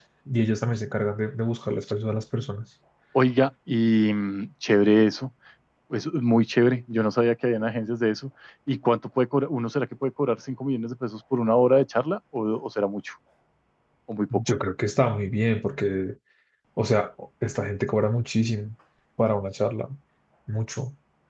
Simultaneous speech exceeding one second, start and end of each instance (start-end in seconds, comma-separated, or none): none